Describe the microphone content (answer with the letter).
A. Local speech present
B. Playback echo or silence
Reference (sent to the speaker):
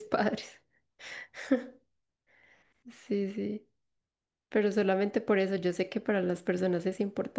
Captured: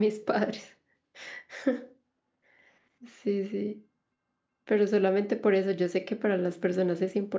B